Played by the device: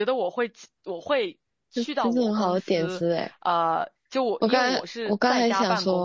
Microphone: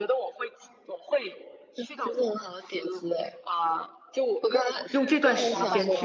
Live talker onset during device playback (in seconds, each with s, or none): 4.9 s